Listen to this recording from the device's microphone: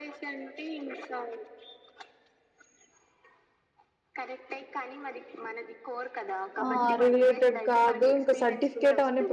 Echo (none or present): present